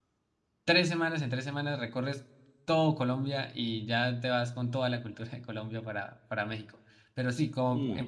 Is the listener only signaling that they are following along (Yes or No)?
Yes